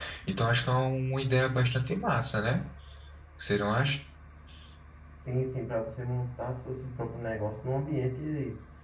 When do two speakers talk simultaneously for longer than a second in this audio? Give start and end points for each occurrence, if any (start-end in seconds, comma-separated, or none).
none